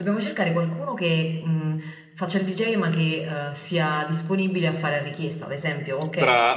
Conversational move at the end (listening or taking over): taking over